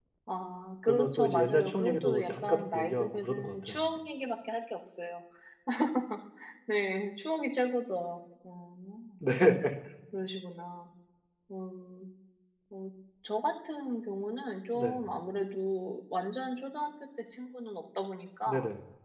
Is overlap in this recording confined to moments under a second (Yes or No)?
No